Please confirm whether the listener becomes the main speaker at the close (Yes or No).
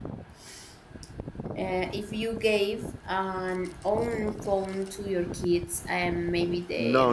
Yes